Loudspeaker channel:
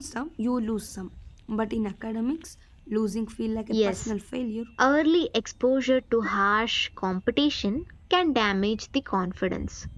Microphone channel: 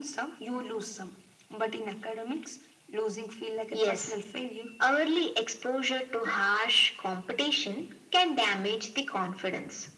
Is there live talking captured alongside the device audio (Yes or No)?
No